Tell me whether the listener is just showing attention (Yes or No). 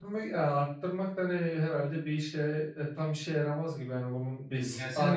No